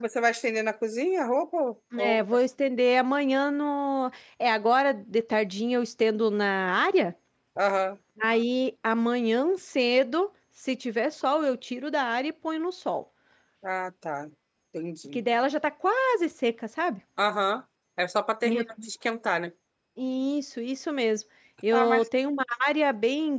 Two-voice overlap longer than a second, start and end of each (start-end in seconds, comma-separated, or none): none